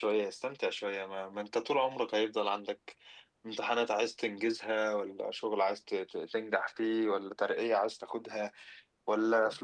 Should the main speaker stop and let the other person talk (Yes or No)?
No